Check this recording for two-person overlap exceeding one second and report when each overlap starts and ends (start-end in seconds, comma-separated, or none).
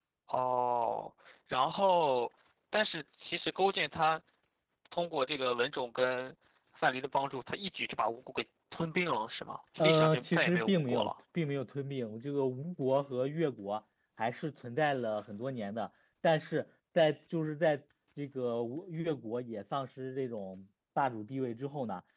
9.8-11.1